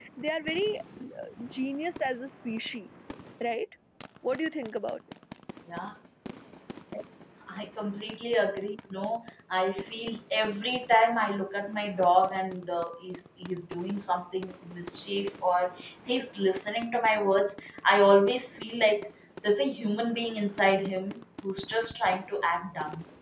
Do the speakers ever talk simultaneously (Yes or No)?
No